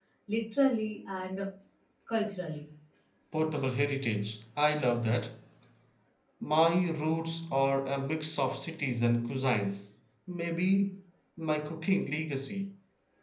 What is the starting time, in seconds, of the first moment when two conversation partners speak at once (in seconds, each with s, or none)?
none